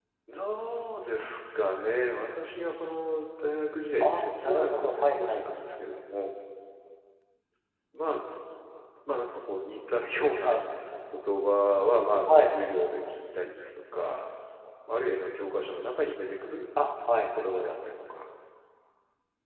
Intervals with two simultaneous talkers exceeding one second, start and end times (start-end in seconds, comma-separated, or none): 4.0-5.4